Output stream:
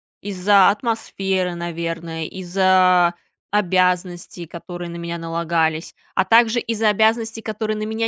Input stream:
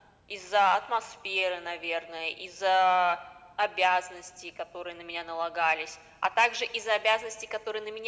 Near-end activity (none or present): none